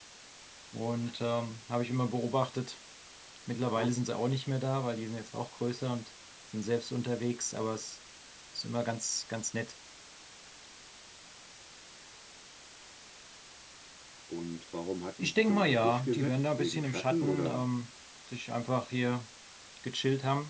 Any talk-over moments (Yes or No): Yes